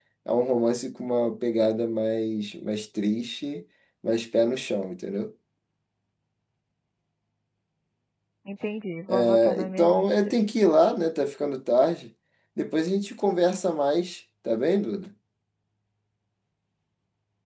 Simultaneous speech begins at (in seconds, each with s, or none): 9.1 s